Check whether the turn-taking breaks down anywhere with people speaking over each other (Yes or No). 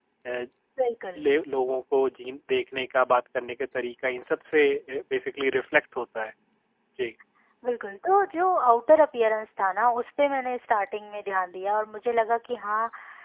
No